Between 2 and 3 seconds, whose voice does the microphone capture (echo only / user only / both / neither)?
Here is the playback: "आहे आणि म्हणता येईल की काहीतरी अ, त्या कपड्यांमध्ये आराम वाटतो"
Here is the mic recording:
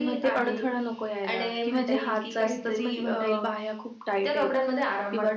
both